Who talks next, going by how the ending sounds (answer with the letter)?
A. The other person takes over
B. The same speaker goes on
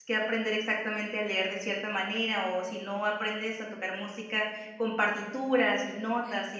B